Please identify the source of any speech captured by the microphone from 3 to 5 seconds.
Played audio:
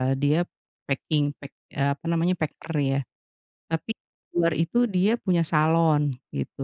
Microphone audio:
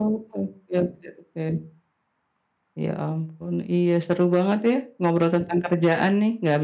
user only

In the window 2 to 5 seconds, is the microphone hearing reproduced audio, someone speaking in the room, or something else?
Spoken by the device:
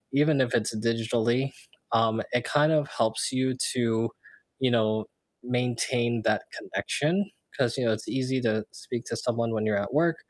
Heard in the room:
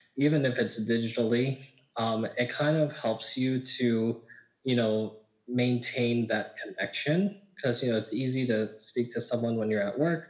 echo only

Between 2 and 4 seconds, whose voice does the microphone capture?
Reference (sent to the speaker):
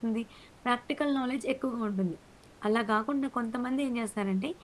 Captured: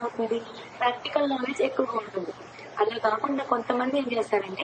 echo only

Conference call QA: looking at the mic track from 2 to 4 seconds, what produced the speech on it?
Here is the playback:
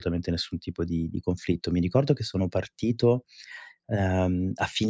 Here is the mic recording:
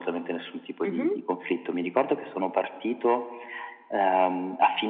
echo only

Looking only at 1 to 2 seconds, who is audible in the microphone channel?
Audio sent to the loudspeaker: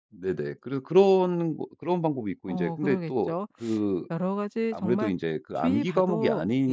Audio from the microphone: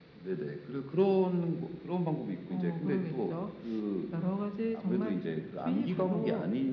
echo only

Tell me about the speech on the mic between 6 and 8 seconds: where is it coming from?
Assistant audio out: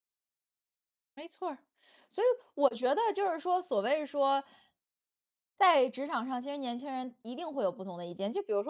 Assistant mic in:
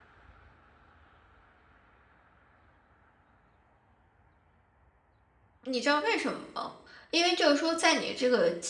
user only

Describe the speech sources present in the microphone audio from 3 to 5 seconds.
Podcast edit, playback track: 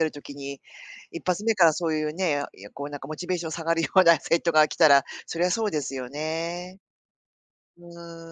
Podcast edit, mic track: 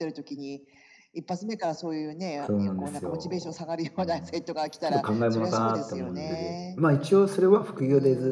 both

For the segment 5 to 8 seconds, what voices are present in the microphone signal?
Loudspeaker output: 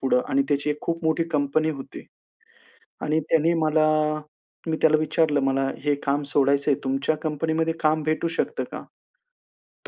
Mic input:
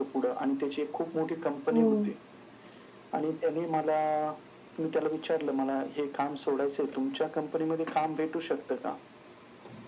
echo only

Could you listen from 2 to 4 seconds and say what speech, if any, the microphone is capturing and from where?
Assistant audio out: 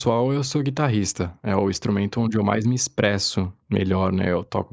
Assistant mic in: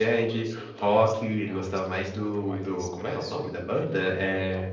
both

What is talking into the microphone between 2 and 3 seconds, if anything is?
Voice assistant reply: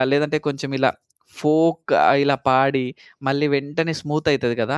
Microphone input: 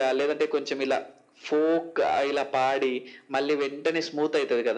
echo only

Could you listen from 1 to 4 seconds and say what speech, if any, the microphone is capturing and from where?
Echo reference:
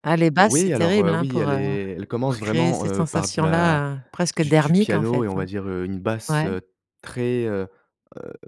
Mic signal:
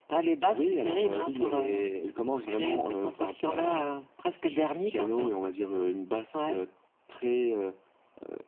echo only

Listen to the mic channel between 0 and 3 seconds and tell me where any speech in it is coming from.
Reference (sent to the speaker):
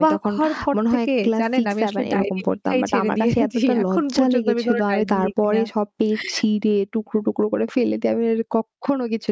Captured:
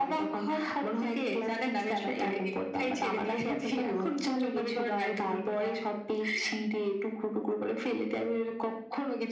echo only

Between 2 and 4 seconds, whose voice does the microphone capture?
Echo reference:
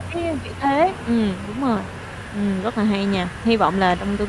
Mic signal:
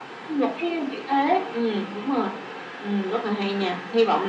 echo only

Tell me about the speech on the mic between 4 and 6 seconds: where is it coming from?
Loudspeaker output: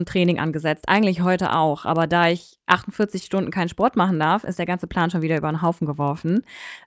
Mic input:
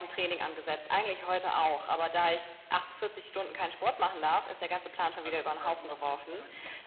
both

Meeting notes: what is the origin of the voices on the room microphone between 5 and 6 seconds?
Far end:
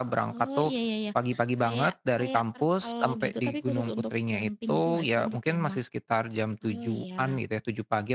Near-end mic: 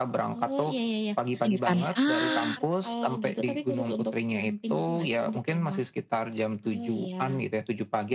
echo only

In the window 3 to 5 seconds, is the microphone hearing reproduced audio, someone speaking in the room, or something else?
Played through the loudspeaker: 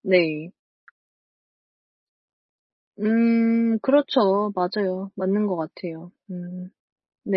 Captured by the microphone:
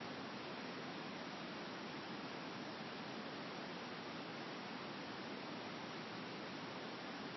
neither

